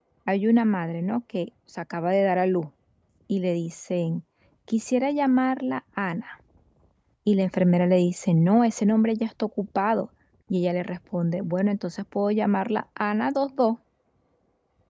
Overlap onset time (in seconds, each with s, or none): none